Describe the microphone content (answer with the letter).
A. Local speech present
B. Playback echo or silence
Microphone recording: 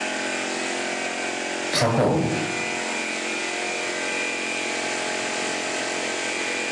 A